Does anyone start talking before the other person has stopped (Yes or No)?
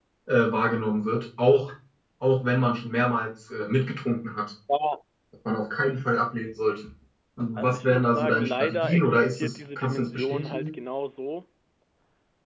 Yes